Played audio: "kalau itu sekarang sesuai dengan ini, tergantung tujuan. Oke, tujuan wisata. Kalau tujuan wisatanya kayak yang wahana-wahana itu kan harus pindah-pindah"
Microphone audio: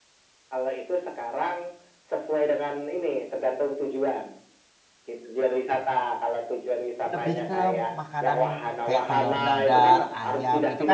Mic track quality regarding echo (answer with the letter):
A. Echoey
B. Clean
A